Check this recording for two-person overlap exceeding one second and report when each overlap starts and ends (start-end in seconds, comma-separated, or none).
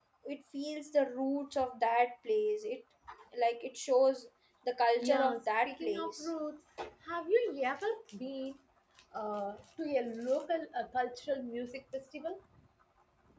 5.0-6.3